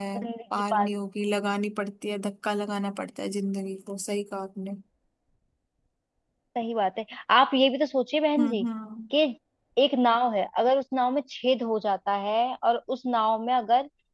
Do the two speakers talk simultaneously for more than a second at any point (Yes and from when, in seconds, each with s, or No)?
No